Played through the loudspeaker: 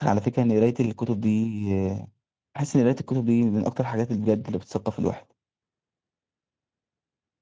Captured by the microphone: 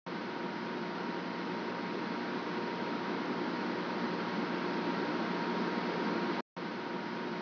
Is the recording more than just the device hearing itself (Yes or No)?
No